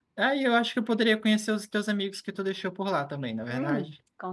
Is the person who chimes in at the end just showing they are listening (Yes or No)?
No